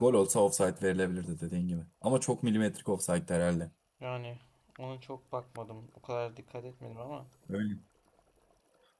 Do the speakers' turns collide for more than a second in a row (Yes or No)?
No